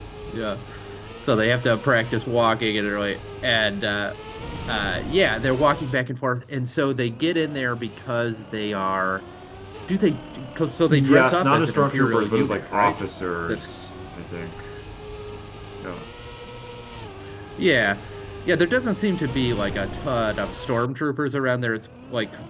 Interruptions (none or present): present